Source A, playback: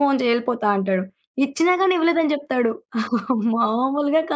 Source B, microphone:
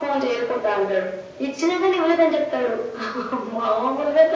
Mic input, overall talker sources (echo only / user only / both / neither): echo only